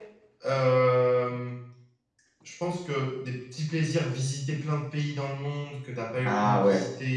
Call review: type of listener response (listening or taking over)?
listening